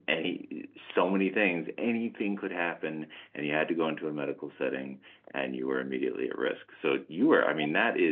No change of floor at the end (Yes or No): Yes